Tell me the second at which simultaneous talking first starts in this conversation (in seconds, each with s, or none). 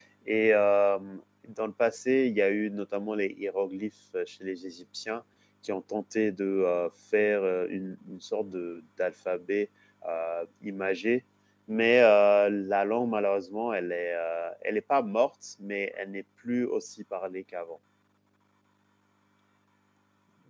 none